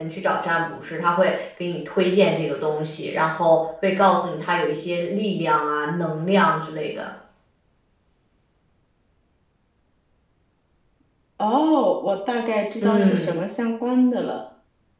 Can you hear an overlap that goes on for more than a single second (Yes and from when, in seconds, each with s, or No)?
No